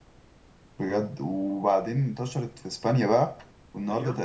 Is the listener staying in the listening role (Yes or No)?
Yes